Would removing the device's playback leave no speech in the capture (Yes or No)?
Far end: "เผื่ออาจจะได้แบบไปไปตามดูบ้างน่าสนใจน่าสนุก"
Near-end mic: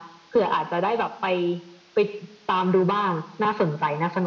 Yes